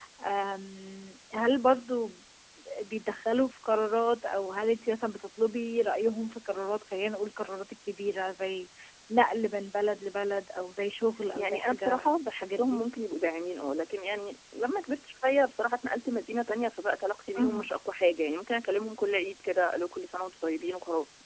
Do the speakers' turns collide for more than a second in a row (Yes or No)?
Yes